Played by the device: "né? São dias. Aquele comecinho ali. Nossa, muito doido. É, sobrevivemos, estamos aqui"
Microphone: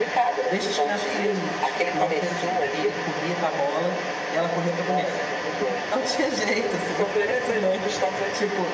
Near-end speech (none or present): present